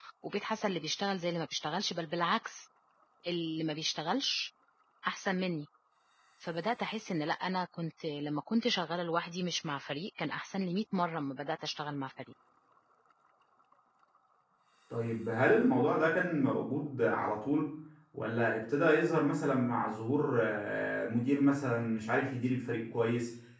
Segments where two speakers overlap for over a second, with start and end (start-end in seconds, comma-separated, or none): none